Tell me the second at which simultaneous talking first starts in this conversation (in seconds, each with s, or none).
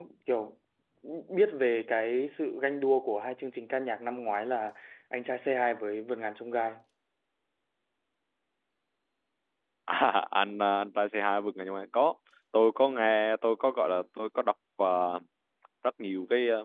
none